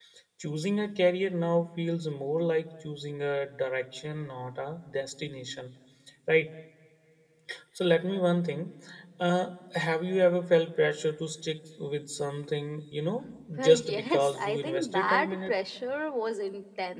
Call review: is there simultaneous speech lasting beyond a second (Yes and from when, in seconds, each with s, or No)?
Yes, from 13.6 s